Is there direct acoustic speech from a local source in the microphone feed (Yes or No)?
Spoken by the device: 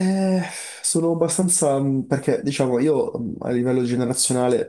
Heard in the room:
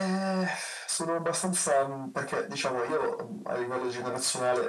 No